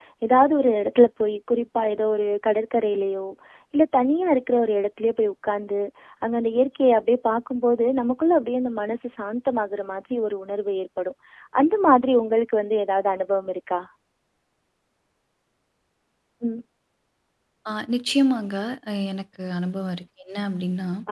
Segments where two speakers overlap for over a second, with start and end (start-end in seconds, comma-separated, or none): none